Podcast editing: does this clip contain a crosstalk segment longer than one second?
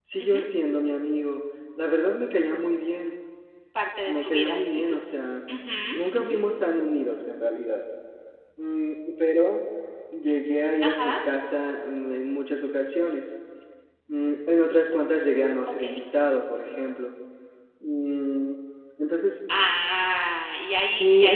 No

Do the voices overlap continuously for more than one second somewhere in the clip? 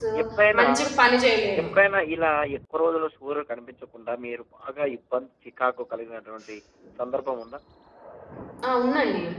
No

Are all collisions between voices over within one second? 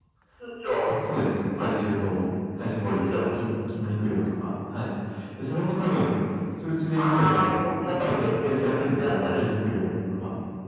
No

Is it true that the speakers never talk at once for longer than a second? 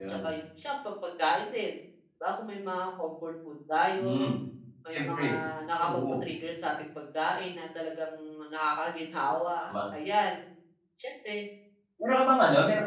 Yes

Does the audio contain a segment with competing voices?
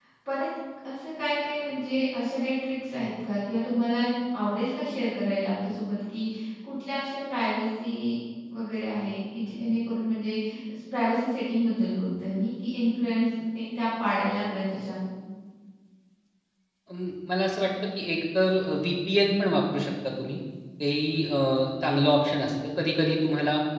No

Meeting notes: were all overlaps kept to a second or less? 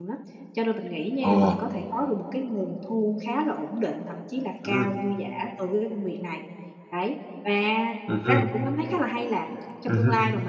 Yes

